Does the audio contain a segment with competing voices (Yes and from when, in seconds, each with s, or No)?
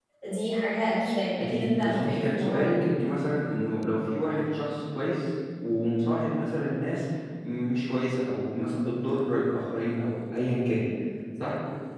Yes, from 1.4 s